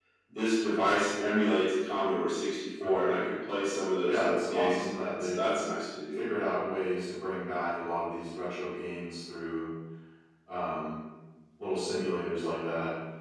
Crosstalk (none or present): present